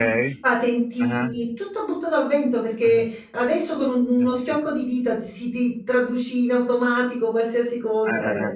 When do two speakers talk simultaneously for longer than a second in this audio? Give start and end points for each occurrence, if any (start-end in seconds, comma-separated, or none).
none